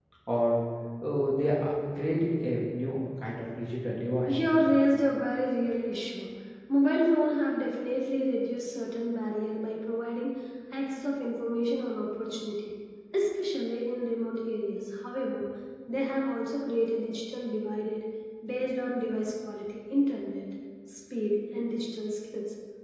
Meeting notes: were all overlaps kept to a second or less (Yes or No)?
Yes